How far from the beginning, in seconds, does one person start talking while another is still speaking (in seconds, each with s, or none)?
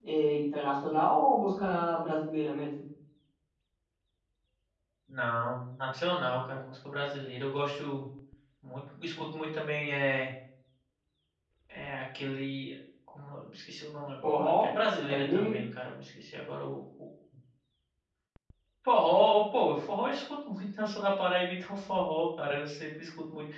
14.2 s